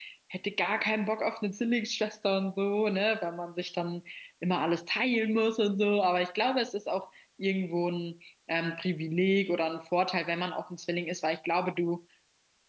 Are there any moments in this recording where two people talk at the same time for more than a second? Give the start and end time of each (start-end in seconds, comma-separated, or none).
none